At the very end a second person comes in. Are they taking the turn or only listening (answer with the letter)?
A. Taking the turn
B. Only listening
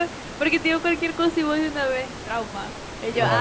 A